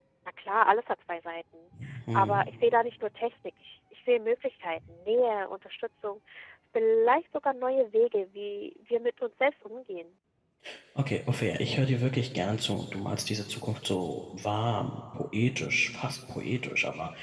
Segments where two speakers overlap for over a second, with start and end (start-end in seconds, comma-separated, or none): none